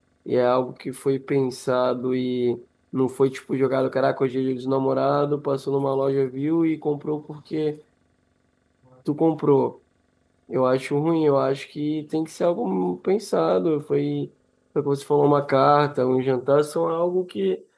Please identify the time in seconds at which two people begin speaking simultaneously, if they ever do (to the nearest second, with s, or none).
none